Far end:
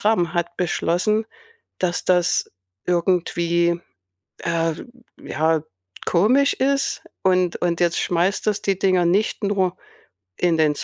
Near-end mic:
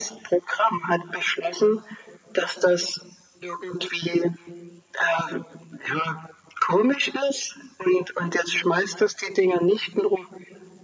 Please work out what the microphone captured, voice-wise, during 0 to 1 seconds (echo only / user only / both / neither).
echo only